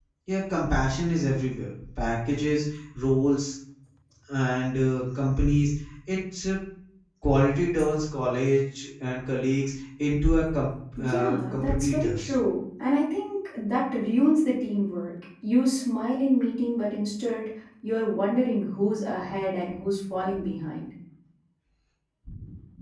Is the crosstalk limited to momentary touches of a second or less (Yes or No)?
No